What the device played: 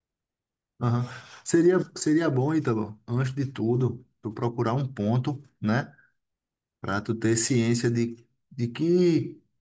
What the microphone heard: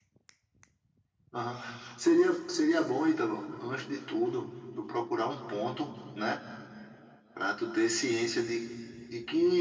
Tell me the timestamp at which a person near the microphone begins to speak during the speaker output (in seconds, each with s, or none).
none